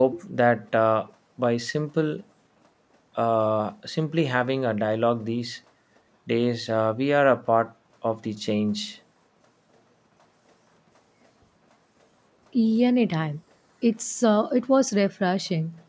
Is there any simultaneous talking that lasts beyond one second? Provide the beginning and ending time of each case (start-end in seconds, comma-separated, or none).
none